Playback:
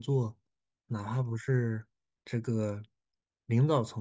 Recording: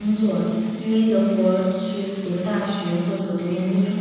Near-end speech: present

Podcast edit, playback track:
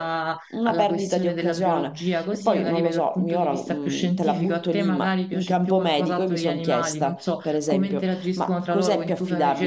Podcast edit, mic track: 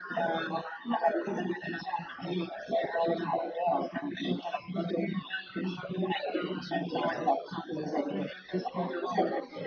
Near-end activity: present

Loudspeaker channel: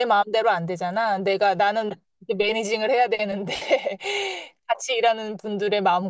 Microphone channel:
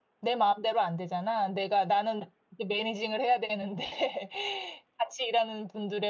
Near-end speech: none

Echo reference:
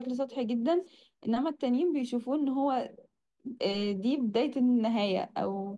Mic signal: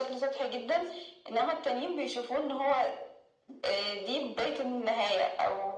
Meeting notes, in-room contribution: none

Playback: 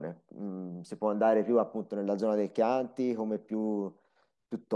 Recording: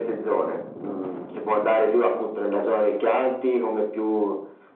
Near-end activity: none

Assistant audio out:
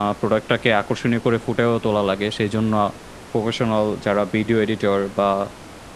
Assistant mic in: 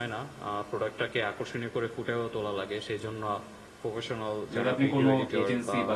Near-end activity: present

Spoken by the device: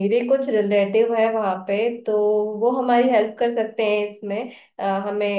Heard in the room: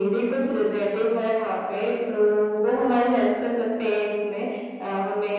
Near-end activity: none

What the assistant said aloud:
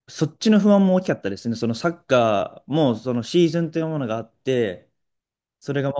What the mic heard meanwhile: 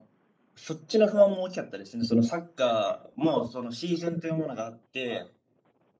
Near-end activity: none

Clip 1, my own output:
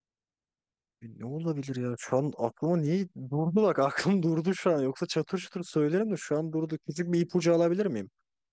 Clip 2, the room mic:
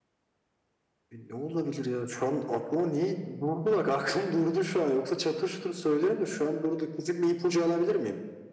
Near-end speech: none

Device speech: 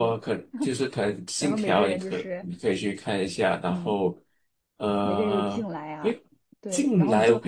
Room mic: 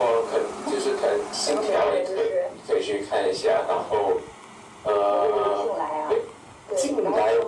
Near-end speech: none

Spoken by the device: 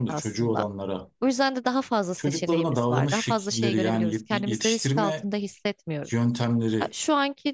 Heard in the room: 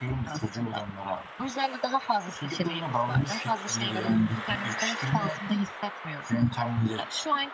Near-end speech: none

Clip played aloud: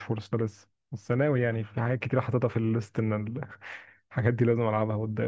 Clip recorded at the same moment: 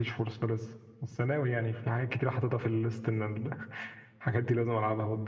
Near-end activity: none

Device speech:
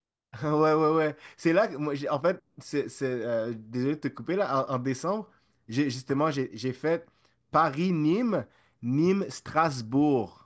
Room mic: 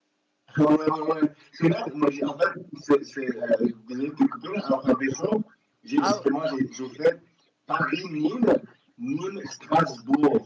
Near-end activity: present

